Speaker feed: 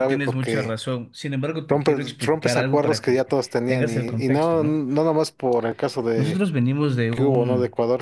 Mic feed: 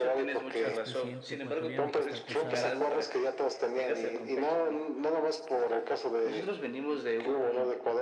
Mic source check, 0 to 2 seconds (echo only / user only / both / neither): both